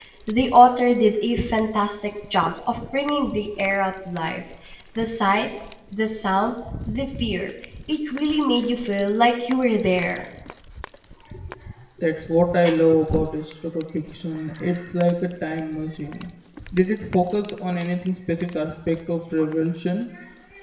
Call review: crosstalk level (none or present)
none